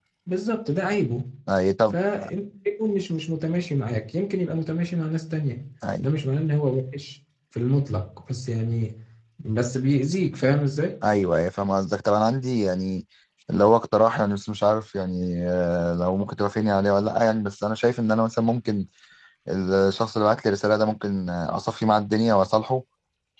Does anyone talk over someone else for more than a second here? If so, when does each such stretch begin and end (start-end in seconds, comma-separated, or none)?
none